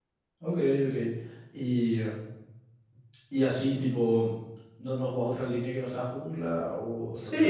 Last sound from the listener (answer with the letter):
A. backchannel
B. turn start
B